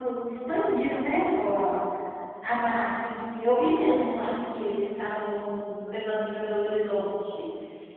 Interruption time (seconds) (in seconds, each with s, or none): none